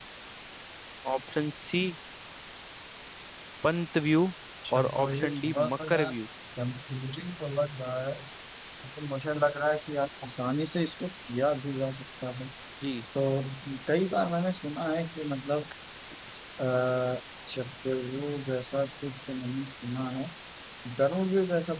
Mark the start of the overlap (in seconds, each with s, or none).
4.8 s